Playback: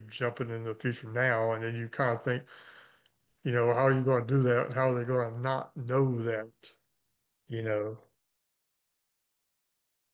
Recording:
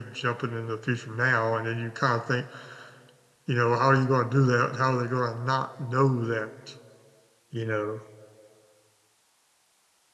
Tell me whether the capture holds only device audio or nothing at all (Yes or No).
Yes